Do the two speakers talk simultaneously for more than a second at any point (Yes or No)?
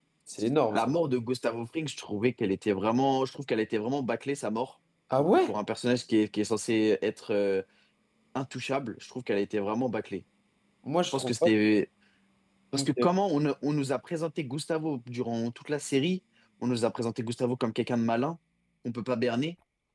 No